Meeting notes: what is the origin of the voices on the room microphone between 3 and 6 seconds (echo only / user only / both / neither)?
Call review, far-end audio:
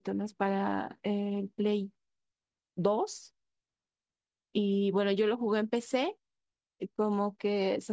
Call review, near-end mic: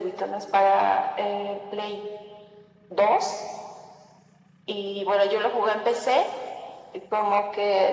echo only